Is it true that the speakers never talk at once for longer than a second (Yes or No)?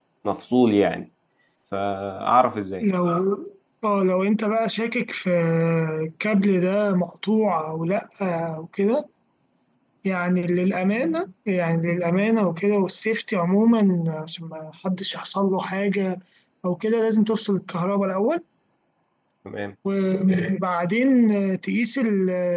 Yes